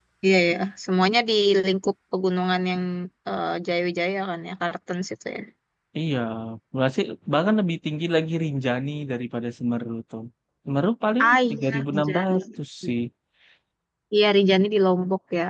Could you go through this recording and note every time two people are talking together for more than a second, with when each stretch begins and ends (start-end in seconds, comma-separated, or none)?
11.2-12.4